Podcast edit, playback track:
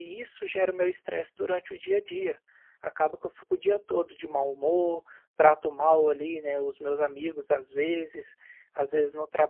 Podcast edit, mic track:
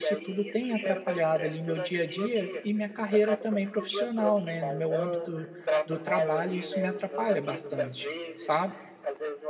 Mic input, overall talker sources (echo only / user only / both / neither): both